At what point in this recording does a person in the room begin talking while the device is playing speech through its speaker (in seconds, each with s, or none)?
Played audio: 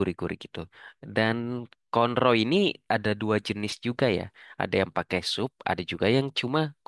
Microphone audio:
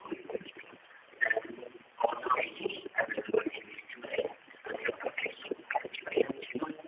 none